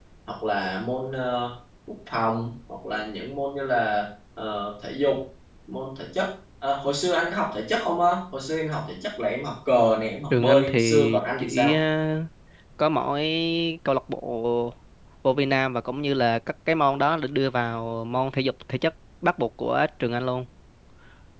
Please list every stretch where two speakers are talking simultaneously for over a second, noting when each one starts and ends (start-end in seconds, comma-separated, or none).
10.3-11.8